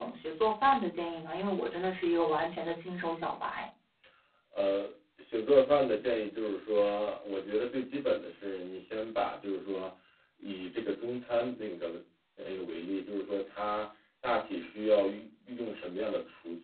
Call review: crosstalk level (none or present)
none